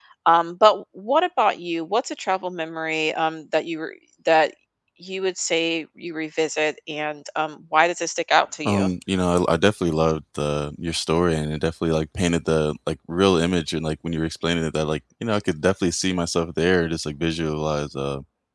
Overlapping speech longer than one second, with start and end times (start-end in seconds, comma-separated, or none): none